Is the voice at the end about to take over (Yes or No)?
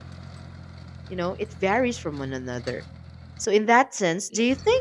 No